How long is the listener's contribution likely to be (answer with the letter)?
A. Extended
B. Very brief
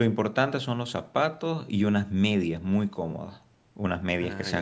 B